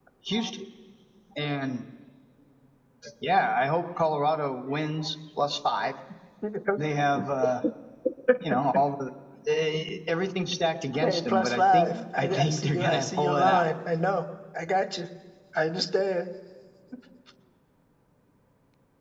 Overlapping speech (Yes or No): Yes